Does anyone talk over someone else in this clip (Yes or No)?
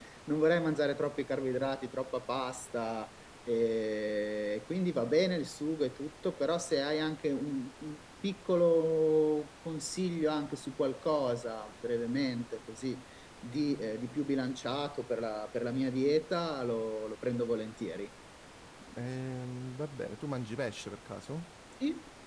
No